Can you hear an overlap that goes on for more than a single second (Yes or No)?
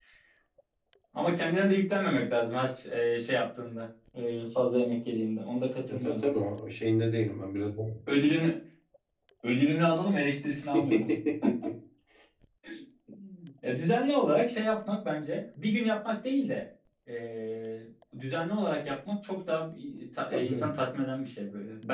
No